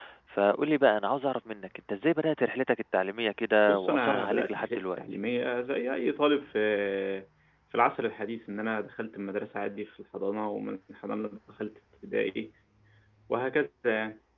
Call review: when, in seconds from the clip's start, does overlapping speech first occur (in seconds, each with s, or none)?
3.7 s